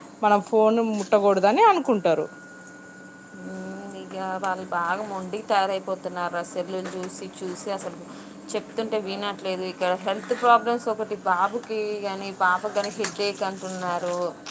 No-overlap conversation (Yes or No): Yes